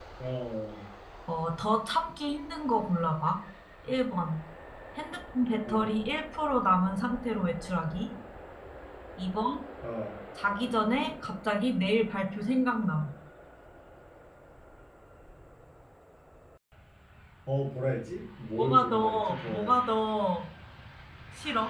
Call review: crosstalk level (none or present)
present